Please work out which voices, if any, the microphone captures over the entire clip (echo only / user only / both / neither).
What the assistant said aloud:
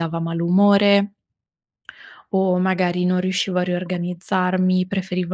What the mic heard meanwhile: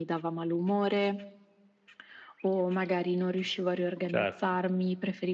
both